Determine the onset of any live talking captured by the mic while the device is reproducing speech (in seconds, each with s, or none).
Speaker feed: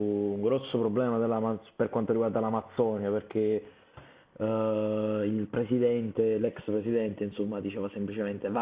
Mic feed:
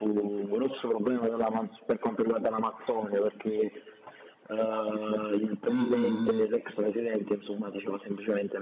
5.7 s